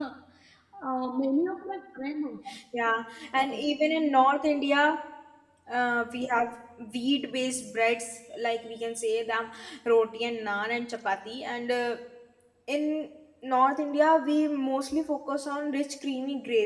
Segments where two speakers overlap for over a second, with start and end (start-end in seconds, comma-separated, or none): none